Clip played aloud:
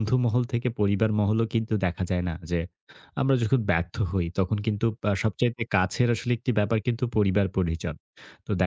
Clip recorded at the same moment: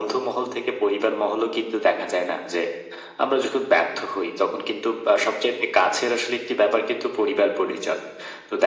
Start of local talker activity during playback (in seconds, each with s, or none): none